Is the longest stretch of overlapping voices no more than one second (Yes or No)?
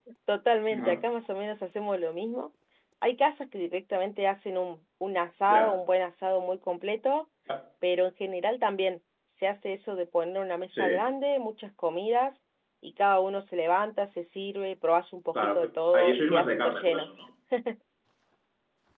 No